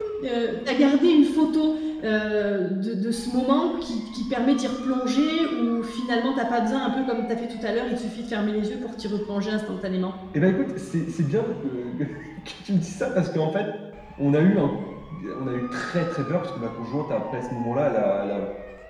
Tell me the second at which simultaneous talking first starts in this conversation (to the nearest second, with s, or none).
none